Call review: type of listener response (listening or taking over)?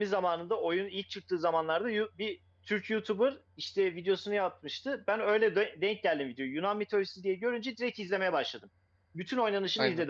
listening